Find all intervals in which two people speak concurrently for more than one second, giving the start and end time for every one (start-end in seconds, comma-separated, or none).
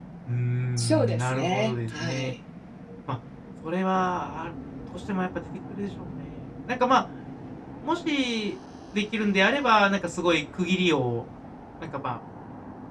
0.8-2.3